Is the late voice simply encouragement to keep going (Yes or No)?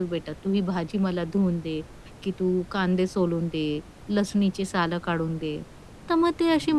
Yes